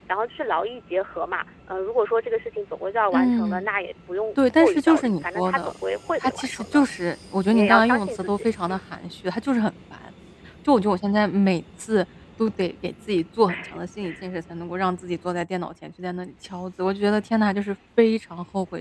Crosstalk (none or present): present